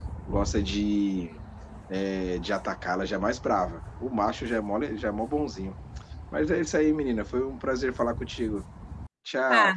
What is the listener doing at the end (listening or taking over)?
taking over